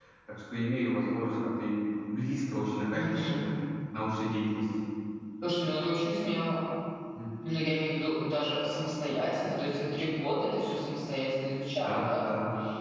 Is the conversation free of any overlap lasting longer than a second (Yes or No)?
Yes